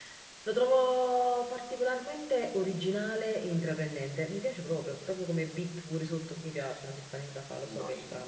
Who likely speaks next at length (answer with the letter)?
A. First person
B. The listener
B